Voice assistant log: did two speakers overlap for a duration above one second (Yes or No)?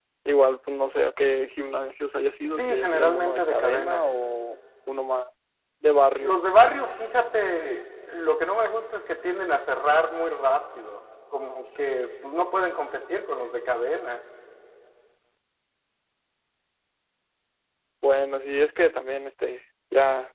Yes